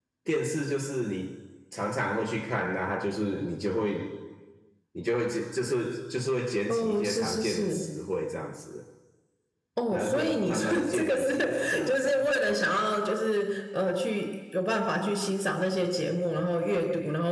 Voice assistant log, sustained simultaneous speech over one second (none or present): present